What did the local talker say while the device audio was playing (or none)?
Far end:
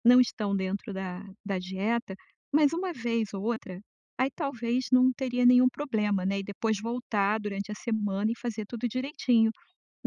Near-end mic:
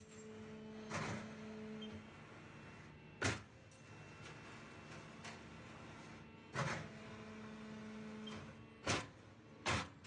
none